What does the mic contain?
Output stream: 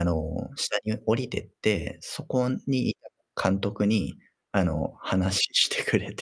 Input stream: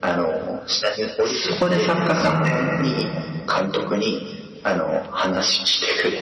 both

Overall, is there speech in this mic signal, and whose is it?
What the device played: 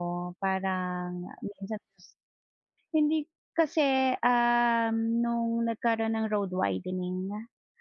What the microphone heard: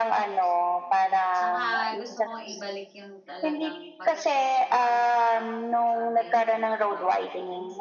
both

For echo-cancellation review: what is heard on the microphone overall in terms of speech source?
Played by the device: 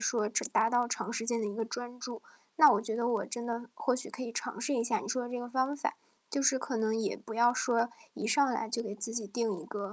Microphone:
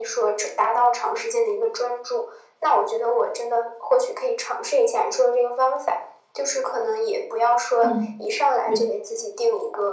both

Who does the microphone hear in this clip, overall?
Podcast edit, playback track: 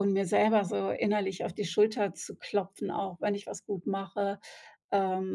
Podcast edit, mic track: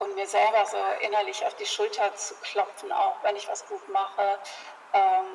echo only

